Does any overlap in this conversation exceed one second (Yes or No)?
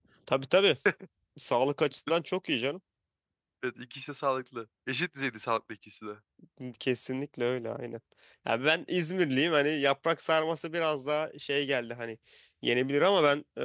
No